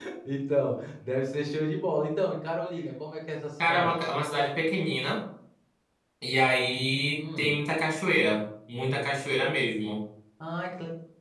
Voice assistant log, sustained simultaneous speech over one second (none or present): none